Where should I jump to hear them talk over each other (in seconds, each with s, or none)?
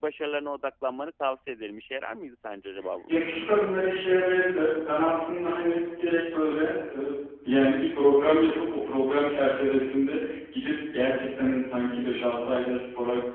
none